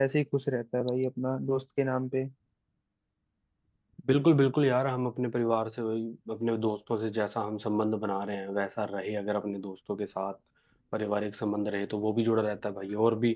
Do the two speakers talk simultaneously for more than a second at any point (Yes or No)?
No